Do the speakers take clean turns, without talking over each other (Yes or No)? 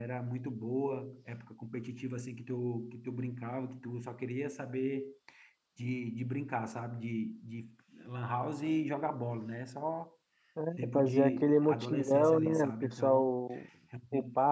No